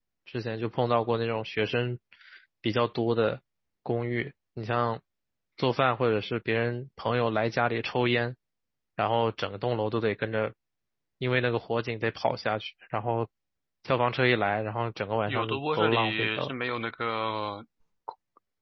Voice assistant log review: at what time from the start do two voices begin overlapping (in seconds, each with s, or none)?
15.3 s